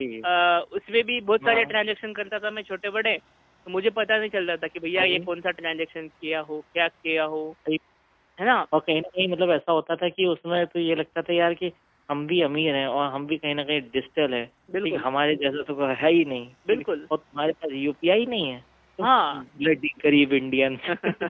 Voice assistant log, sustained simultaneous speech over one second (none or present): none